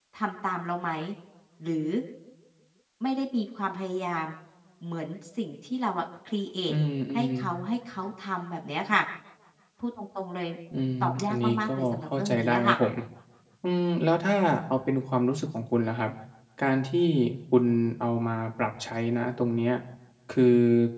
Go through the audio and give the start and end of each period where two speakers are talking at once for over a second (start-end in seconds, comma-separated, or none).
11.0-12.8